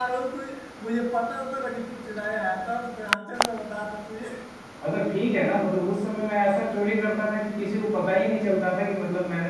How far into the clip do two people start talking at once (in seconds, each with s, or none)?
none